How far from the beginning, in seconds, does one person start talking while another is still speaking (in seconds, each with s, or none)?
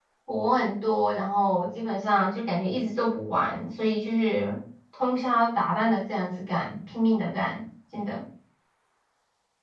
none